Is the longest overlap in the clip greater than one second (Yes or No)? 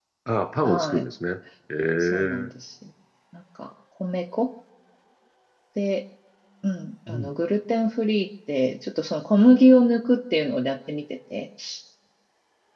No